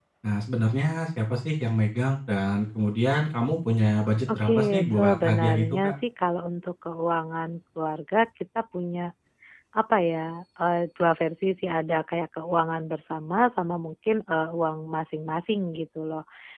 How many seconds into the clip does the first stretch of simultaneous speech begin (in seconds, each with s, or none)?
4.3 s